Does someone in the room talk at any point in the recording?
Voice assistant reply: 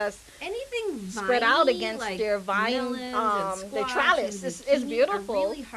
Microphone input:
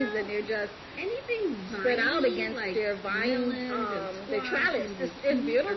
No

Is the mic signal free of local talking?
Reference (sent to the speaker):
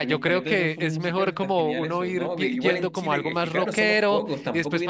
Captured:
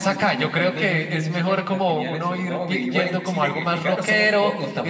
Yes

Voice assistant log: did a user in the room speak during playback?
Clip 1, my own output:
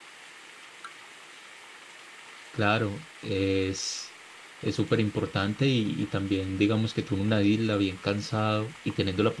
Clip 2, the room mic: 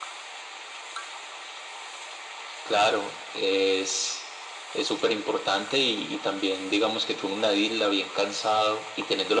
No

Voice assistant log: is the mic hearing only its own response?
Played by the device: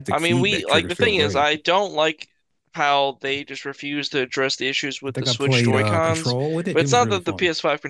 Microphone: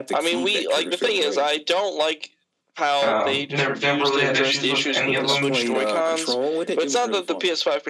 No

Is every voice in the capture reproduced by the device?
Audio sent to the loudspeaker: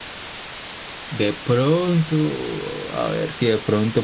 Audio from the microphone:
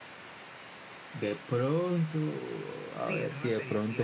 No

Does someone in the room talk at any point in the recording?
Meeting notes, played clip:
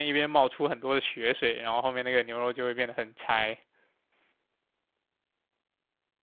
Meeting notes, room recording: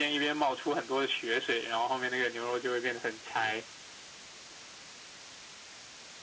No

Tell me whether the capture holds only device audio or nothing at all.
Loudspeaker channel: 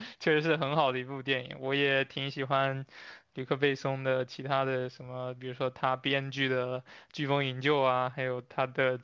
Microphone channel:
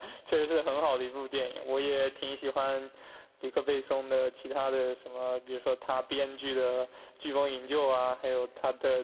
Yes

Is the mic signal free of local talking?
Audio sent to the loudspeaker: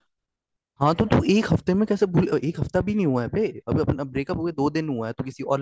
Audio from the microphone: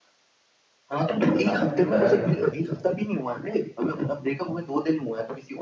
No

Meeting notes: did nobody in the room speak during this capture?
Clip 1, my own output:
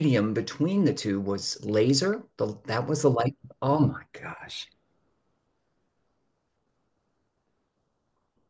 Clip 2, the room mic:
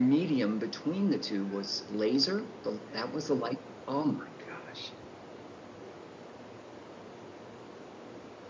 Yes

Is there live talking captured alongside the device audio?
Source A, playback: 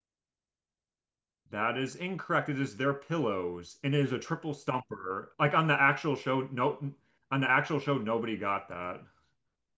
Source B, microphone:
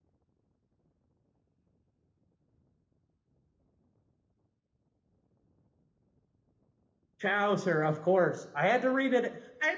Yes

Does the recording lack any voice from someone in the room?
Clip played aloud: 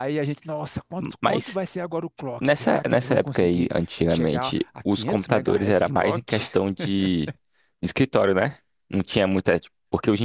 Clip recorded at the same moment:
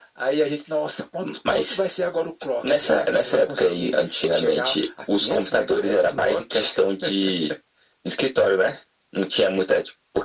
Yes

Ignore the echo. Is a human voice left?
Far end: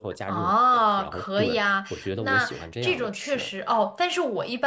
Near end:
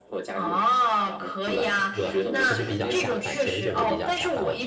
Yes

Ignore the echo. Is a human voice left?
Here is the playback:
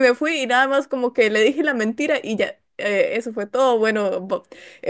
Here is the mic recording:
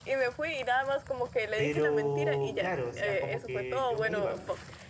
Yes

